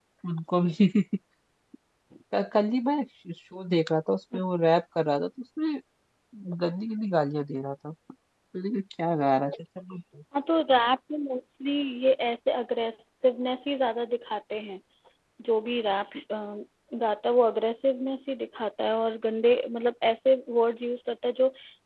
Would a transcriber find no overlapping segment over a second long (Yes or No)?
Yes